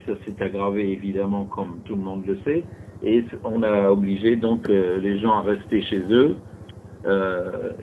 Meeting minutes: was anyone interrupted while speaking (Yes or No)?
No